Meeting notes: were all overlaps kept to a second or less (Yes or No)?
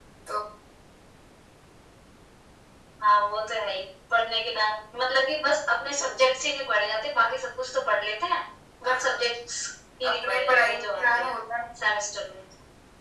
No